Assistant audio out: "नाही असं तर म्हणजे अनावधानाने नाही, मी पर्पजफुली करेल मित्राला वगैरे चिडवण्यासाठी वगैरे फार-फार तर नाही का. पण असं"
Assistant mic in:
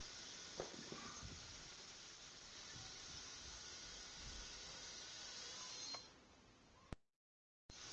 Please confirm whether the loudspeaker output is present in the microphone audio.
No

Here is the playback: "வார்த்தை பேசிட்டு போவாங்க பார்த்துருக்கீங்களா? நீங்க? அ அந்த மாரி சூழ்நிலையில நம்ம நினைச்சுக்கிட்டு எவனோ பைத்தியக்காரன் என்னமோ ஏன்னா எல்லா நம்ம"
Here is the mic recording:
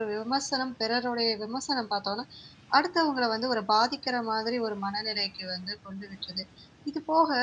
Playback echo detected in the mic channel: No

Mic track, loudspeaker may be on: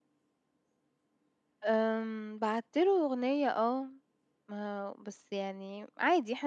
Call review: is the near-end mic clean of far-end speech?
Yes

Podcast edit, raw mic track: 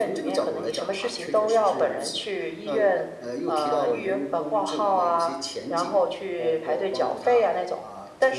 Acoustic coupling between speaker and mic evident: Yes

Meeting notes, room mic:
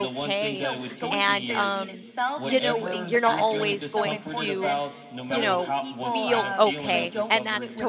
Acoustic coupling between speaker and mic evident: Yes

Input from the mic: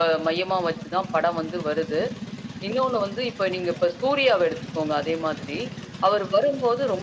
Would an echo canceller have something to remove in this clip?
Yes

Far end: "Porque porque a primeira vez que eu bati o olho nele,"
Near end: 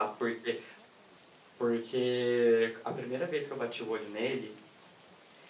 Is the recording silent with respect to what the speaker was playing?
No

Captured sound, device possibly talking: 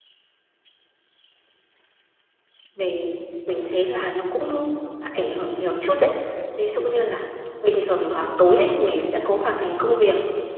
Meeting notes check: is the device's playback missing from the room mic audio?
Yes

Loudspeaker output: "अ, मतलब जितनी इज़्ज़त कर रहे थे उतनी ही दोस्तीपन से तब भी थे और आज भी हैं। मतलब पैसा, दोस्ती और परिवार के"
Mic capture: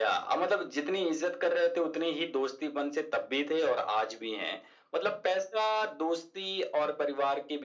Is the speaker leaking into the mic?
Yes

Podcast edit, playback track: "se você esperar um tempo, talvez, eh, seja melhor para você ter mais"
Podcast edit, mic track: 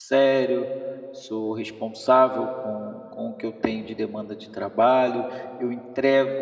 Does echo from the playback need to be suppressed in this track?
No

